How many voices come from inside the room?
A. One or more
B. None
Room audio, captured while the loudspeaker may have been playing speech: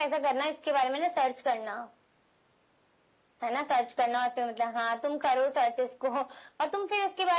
B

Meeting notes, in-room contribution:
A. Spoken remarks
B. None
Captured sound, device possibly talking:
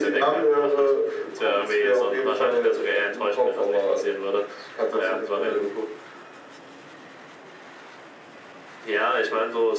B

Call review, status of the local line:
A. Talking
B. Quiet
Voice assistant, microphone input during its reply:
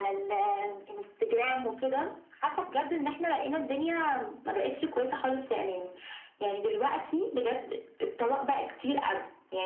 B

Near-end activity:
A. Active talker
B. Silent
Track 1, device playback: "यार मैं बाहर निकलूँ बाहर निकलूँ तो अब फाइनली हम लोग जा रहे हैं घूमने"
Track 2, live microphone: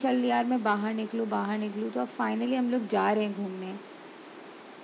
B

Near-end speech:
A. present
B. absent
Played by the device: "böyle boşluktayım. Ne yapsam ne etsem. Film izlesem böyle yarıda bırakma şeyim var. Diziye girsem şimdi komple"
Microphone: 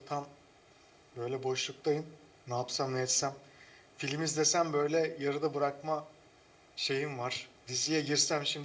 B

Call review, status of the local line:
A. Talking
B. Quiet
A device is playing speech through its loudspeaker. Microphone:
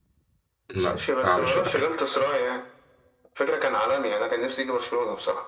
A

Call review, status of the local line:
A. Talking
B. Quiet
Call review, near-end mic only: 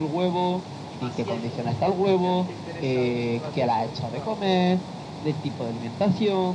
A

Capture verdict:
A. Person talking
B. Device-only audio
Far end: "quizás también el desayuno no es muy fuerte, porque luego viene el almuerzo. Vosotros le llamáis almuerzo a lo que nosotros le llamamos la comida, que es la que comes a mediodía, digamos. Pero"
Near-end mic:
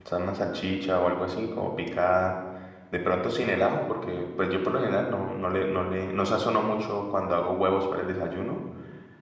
A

